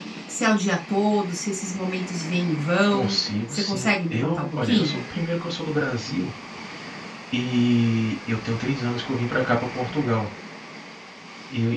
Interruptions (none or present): present